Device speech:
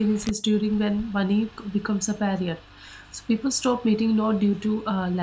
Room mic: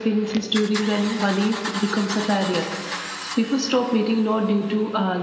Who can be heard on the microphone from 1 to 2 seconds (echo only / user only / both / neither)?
echo only